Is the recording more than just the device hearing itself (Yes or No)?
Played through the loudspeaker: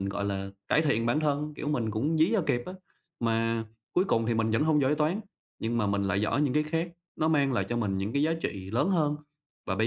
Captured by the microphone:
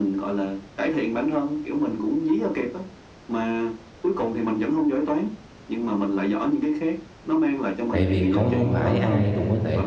Yes